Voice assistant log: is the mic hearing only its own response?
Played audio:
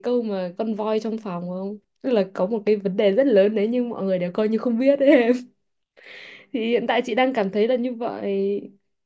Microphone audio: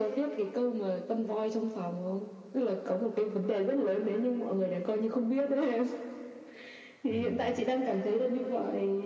No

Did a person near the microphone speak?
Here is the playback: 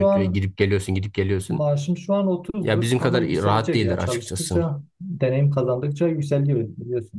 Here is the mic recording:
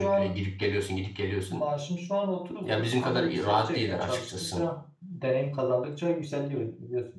No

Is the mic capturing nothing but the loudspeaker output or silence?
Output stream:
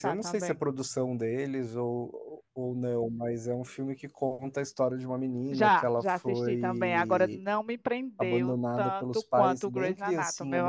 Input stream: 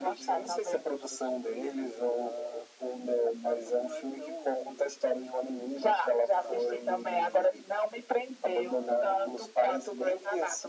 No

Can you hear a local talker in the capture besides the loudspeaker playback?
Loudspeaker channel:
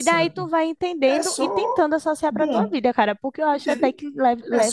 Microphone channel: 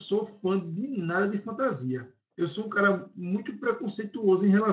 Yes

